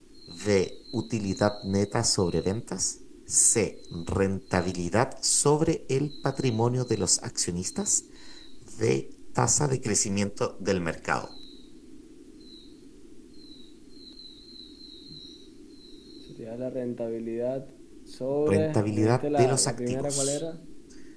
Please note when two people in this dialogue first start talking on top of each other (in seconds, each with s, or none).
18.5 s